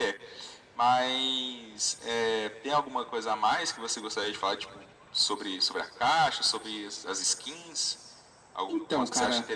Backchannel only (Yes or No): No